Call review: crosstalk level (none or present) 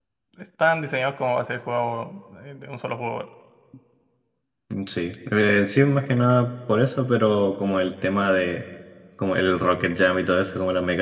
none